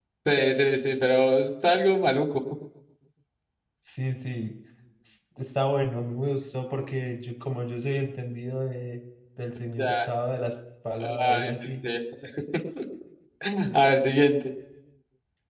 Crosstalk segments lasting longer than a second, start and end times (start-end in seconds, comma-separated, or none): none